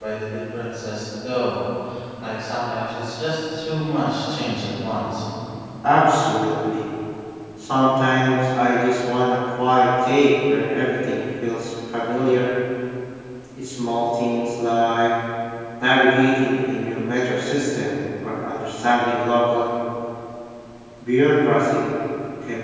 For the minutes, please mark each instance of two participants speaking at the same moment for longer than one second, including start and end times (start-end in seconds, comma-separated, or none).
none